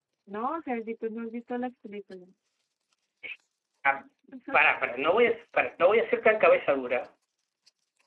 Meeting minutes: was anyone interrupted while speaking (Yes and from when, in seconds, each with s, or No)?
No